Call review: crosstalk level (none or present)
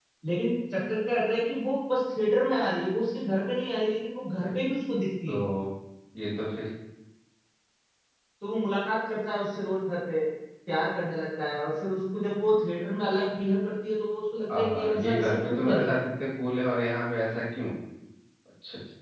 present